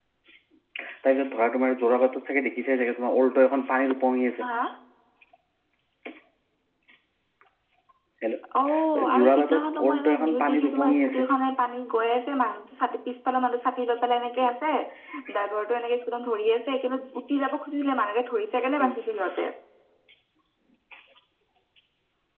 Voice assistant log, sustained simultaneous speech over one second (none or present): present